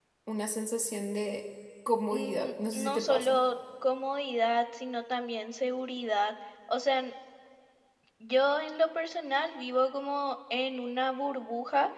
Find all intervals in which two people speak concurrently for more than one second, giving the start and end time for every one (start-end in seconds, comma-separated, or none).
2.1-3.4